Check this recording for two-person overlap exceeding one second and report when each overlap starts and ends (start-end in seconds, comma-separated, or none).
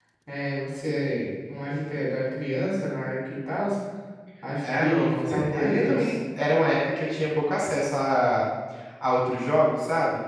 4.6-6.2